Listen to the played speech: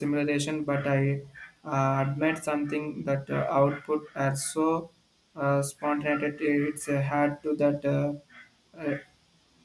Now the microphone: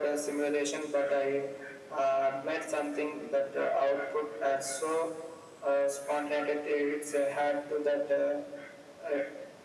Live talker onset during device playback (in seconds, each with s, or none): none